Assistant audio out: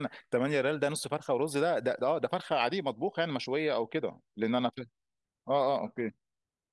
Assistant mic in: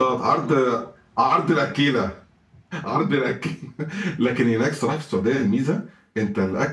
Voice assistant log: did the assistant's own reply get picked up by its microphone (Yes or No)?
No